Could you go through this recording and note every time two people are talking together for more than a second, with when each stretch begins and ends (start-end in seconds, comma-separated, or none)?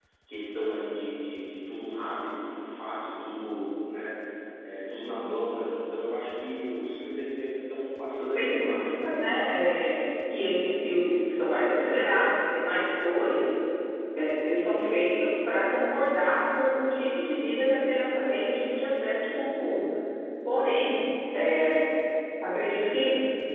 8.3-9.6